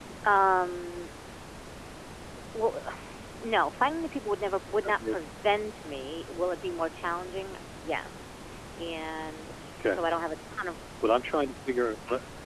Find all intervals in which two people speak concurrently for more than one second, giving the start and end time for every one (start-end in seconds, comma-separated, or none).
none